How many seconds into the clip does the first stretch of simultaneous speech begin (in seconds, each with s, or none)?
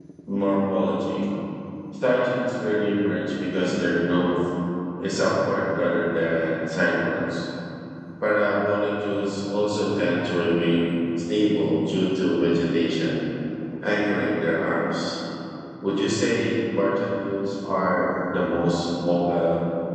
none